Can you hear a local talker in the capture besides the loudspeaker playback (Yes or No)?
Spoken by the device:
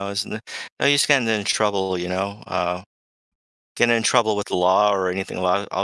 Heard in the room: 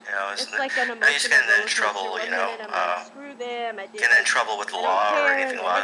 Yes